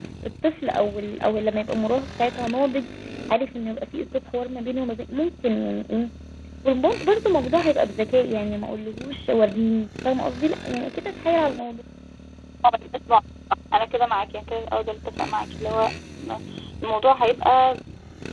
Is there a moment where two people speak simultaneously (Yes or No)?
No